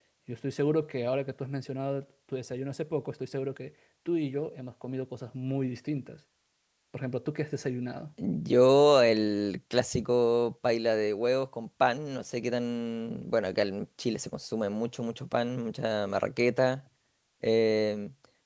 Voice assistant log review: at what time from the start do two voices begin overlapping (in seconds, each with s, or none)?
none